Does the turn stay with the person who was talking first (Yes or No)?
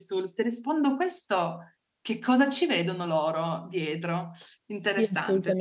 No